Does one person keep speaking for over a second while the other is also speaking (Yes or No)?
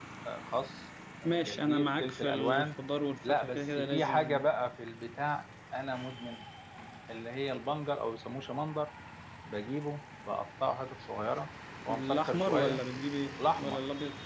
Yes